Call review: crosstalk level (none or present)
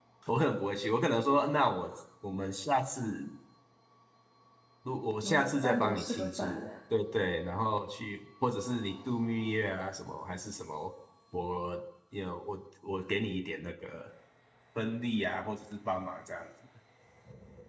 present